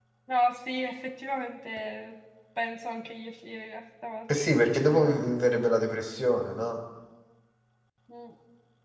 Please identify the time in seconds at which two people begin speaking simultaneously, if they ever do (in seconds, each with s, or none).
none